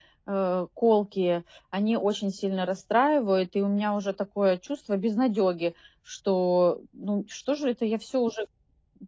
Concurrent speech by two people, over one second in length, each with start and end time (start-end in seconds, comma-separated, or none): none